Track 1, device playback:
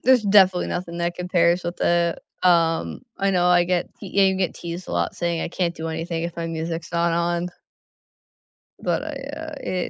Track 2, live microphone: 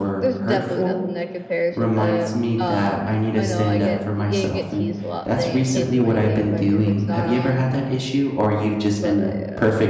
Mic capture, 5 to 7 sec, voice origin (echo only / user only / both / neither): both